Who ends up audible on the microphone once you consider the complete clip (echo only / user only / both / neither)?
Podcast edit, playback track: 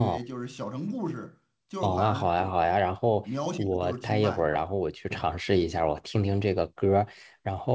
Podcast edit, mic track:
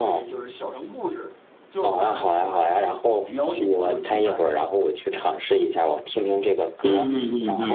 both